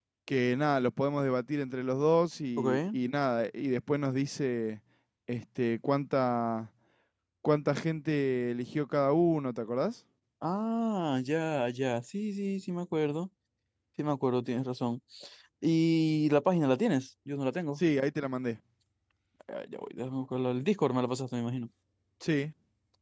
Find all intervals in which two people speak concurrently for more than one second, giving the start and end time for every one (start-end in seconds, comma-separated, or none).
none